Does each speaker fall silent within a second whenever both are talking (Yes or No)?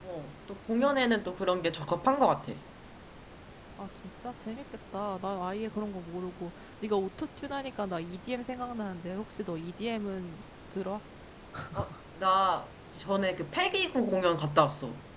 Yes